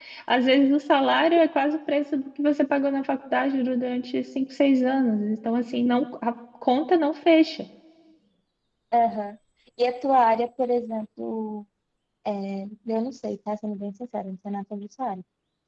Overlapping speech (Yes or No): No